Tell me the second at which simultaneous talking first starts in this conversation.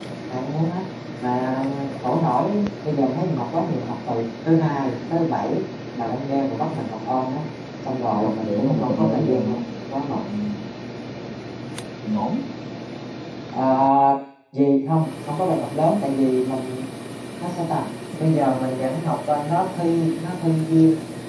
8.2 s

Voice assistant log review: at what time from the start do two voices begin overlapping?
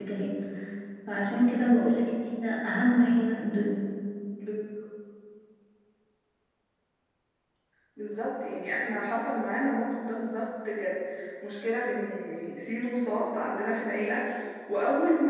none

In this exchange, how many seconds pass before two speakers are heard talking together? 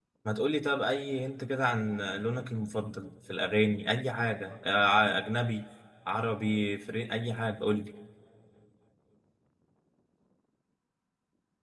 none

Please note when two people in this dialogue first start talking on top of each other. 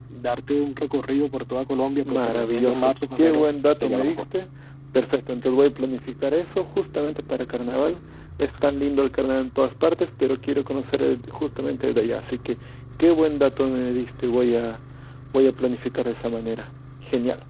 2.0 s

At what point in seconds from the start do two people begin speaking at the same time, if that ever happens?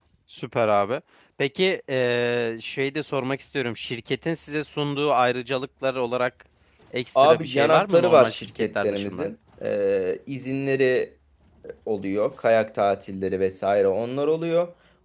7.2 s

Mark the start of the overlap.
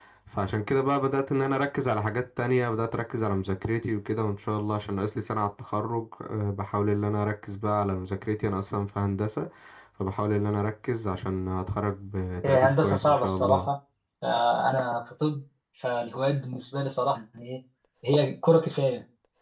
12.4 s

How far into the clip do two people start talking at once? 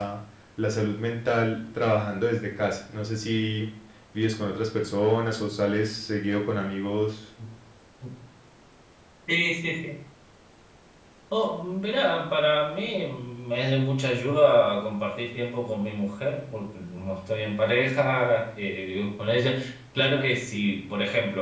none

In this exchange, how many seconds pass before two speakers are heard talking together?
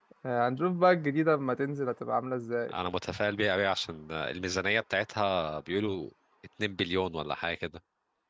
none

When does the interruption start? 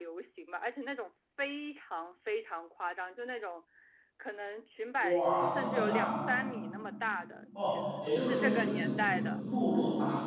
5.0 s

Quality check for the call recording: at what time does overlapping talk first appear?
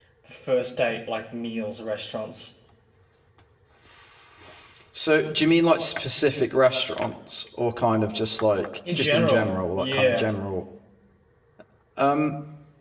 8.8 s

